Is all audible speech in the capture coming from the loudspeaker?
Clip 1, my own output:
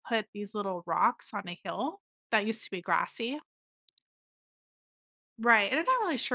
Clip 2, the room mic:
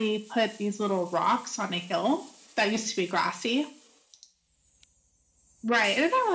Yes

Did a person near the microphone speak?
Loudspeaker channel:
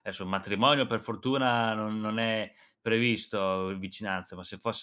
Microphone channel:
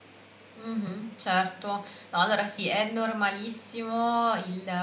Yes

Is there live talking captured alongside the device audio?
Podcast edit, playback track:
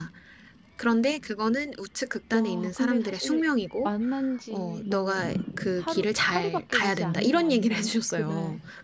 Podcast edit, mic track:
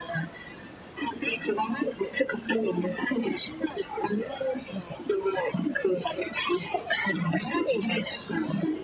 No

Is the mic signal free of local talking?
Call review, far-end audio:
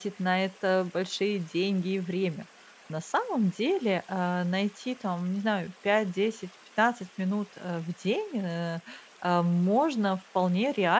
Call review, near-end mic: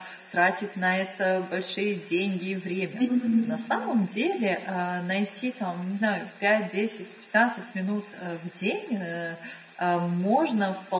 No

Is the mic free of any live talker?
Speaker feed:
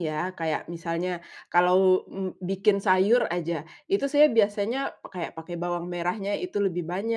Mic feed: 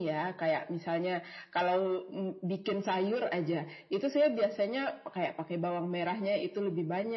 Yes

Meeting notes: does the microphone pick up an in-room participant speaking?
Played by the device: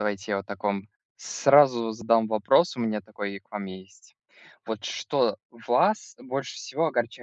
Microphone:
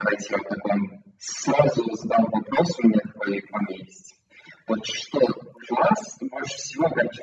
No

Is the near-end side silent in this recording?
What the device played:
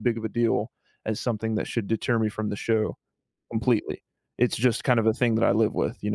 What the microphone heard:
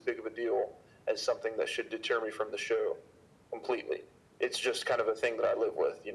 Yes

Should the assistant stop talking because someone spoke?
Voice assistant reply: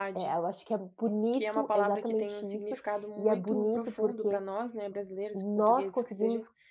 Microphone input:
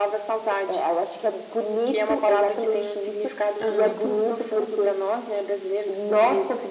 Yes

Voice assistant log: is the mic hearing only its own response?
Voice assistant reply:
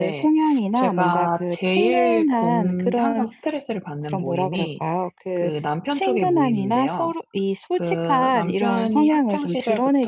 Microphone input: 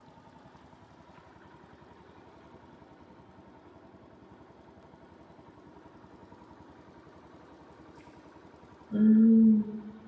No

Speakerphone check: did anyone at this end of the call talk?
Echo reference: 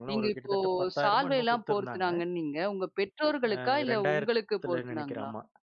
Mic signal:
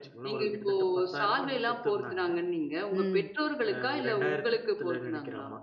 Yes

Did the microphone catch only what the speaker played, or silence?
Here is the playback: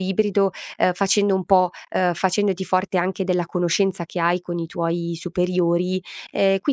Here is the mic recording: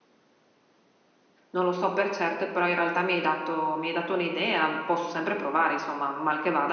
No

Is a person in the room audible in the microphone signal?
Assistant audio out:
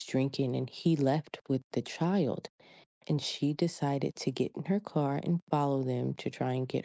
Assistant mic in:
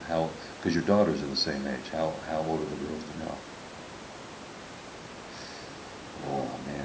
Yes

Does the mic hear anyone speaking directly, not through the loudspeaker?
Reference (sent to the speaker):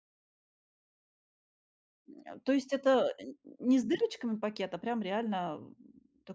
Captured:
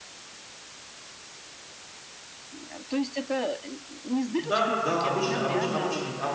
Yes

